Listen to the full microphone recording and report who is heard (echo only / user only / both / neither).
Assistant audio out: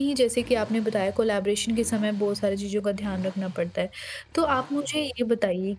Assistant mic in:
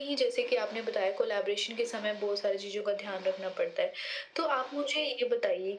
echo only